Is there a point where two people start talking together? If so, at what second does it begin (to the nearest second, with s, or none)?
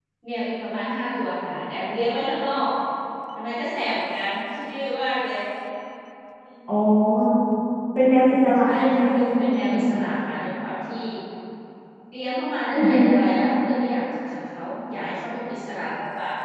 9 s